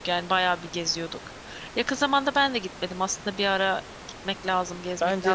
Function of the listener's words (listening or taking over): taking over